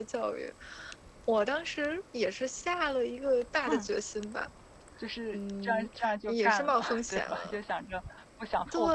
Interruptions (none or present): present